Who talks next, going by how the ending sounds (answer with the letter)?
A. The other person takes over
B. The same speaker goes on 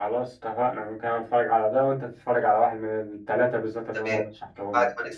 A